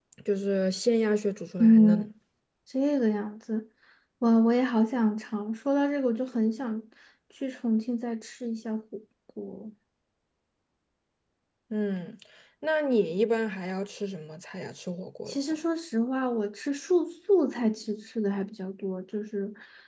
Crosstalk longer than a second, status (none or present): none